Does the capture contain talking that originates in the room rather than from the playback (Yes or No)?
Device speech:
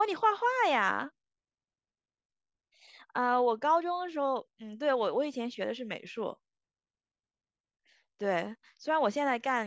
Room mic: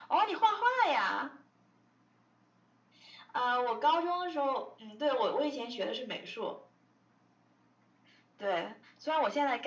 No